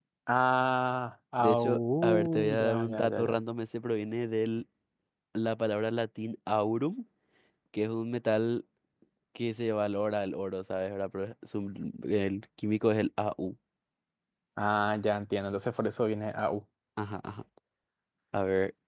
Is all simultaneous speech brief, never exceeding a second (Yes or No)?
No